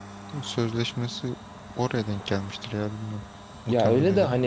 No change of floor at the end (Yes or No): No